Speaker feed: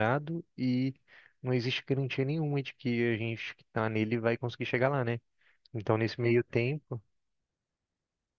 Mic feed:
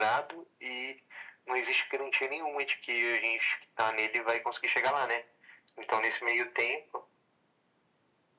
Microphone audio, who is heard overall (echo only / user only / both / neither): echo only